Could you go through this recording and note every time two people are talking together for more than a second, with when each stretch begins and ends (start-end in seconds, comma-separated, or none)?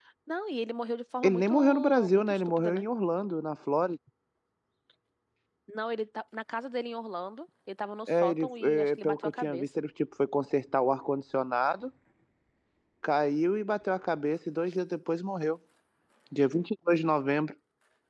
1.2-2.8, 8.1-9.8